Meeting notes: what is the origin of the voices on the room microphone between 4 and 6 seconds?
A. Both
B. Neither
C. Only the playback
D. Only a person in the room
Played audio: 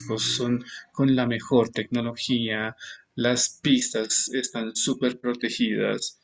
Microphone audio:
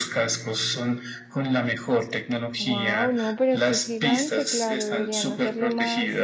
A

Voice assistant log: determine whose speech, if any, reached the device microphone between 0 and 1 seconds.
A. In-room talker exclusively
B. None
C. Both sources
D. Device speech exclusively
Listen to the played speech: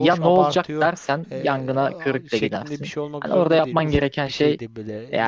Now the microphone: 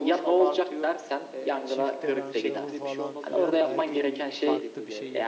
D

